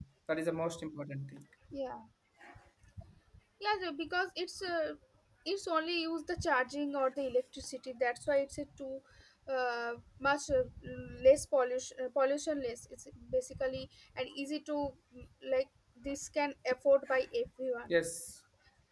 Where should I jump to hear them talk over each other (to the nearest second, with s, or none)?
none